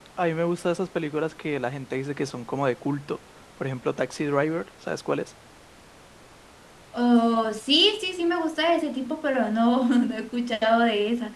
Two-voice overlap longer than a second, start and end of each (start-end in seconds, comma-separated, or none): none